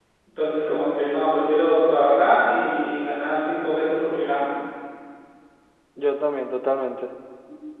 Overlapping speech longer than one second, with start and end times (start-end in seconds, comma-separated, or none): none